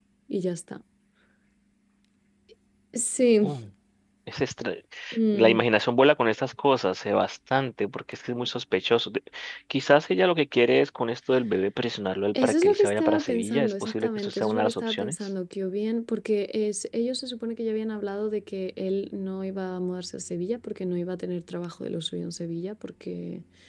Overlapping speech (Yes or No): Yes